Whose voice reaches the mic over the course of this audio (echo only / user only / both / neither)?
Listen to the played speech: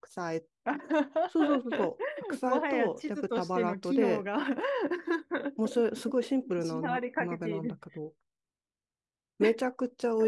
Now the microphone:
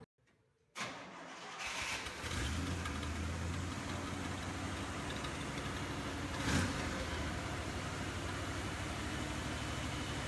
neither